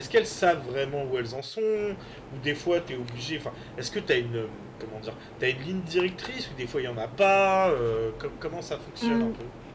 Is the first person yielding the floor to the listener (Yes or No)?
Yes